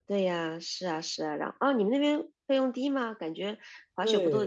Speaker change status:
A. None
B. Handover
B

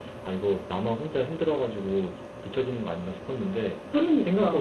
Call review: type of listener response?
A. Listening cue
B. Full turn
A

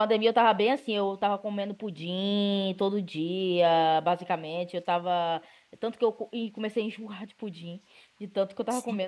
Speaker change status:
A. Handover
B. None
B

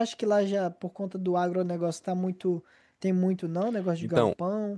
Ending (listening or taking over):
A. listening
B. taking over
B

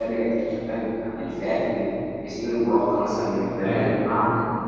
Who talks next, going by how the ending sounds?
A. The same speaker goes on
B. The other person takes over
A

